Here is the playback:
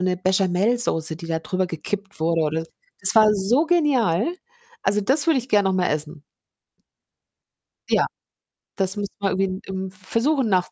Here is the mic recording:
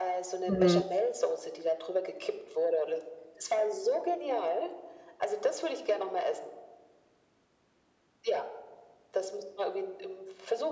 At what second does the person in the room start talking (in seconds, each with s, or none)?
0.5 s